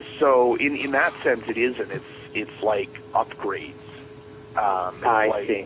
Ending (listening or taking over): listening